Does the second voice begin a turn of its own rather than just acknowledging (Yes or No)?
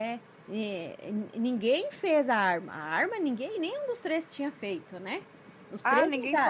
Yes